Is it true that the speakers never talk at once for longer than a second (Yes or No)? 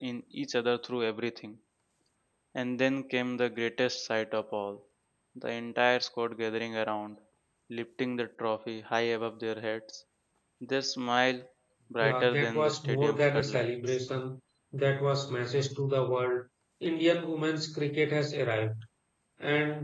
No